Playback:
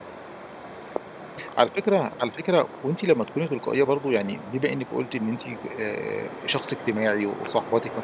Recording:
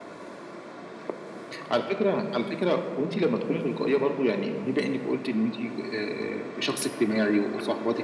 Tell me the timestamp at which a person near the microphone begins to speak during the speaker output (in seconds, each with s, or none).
none